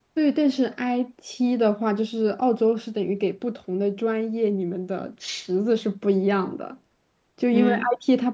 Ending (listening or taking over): listening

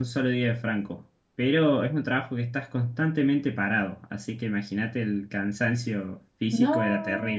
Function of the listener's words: taking over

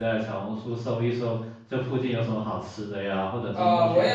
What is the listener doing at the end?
taking over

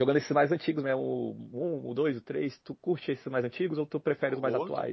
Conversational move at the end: taking over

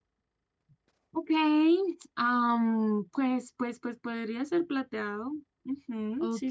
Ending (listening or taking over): taking over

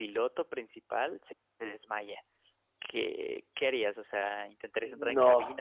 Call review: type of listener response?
listening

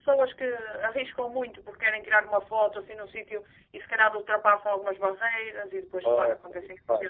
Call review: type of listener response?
taking over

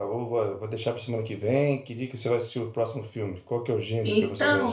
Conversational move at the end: taking over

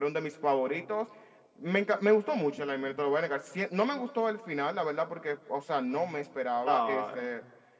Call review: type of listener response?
listening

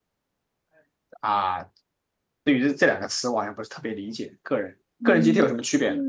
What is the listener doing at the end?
taking over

